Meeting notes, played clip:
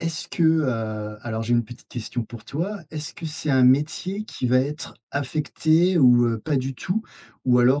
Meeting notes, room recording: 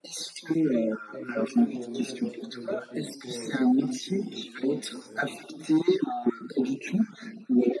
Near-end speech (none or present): present